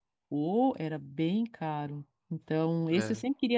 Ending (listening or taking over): listening